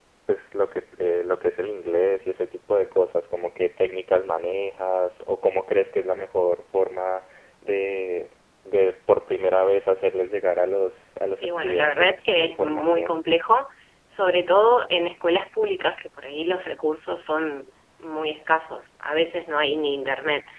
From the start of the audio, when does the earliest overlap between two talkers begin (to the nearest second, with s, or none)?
11 s